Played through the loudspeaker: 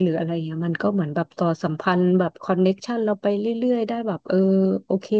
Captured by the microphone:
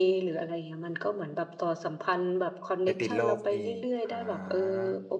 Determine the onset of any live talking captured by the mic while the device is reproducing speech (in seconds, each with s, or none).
2.8 s